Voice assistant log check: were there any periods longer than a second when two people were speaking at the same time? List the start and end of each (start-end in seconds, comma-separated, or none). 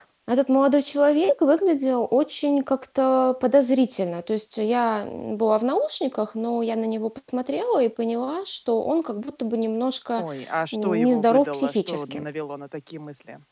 10.7-12.2